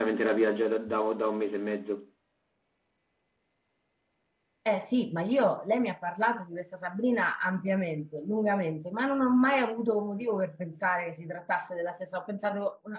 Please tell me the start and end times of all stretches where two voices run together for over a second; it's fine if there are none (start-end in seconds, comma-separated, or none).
none